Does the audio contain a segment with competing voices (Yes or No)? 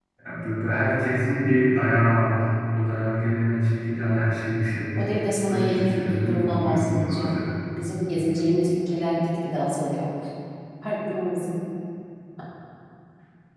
Yes